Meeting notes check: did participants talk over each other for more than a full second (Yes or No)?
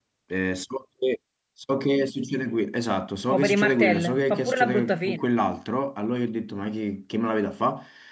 Yes